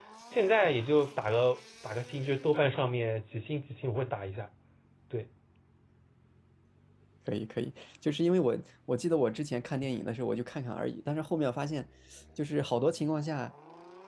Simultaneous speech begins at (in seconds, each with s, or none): none